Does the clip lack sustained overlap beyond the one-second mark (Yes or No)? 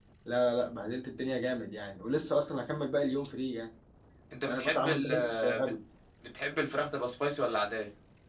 No